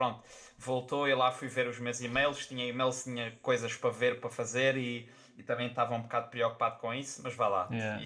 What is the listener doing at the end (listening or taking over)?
listening